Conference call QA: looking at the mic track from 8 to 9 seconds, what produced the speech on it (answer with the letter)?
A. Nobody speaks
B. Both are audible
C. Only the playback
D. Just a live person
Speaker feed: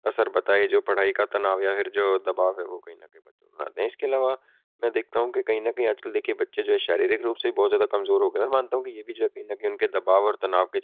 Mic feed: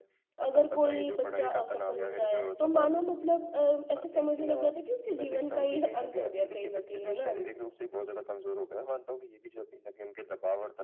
C